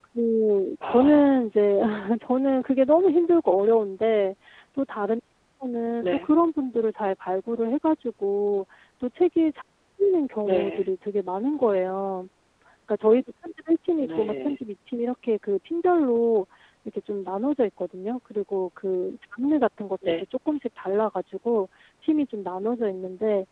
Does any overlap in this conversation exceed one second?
No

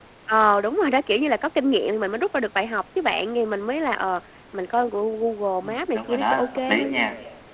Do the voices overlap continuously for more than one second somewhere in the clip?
Yes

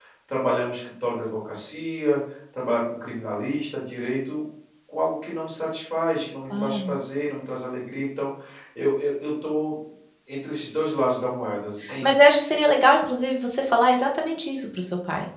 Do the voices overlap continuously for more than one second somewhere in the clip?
No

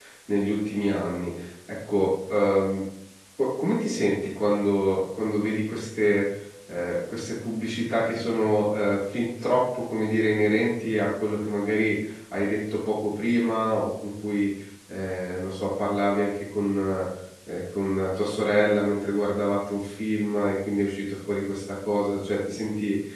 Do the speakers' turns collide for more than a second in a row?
No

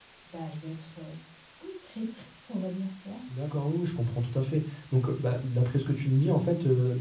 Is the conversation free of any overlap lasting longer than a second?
Yes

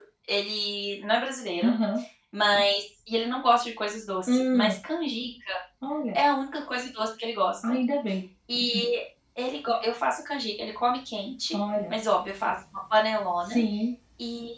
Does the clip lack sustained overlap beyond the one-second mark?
Yes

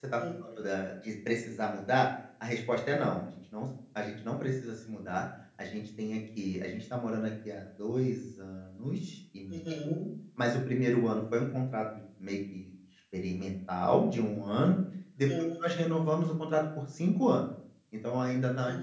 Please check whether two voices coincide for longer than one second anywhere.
No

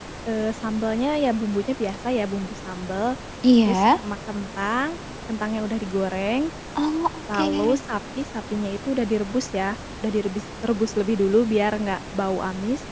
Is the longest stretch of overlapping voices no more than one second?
Yes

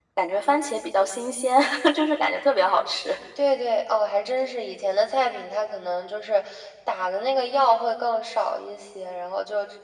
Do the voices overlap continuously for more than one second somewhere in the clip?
No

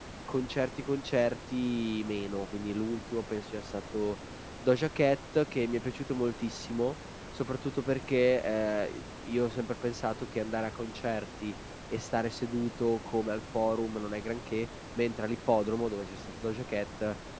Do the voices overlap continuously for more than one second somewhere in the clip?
No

